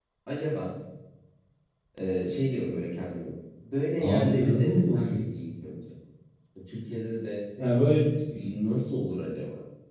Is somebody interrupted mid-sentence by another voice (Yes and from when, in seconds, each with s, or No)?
Yes, from 4.0 s